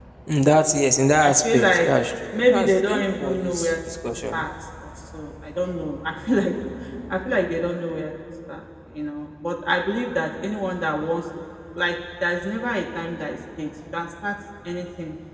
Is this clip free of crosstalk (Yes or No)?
No